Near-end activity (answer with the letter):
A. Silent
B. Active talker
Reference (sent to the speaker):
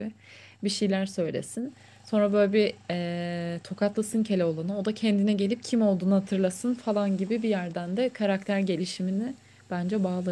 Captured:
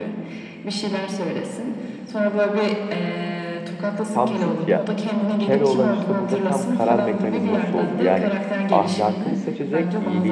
B